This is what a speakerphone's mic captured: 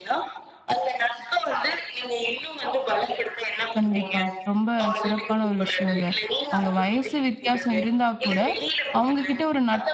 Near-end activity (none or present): present